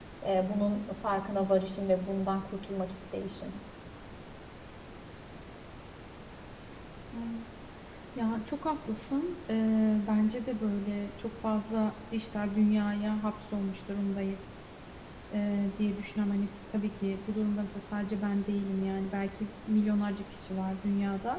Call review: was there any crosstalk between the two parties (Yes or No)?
No